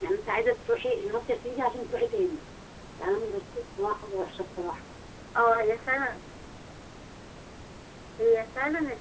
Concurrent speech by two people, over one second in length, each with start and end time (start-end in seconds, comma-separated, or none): none